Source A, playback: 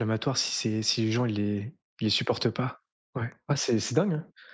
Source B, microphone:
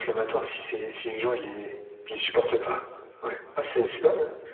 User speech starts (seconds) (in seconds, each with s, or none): none